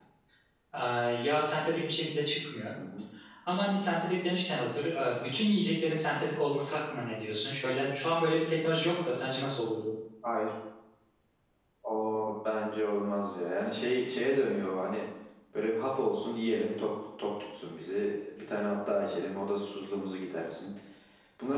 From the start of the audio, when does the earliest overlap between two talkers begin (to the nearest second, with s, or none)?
none